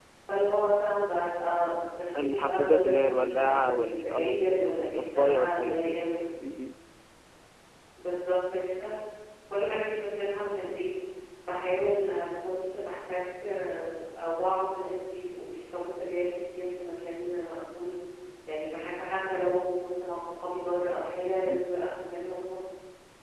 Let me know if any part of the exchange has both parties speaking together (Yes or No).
Yes